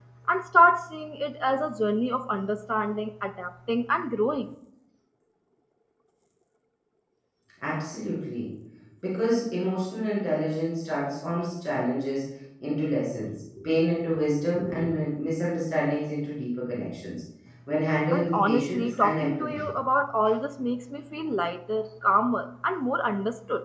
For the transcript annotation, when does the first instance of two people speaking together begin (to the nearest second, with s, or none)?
18 s